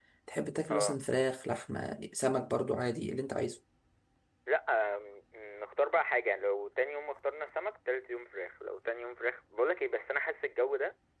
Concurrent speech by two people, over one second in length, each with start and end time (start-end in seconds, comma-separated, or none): none